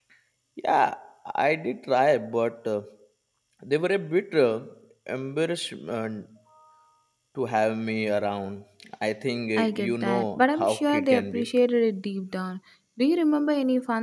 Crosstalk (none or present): present